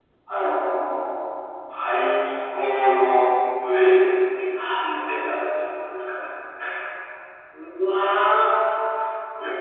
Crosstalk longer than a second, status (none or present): none